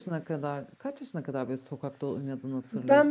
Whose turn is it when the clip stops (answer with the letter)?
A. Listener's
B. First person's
A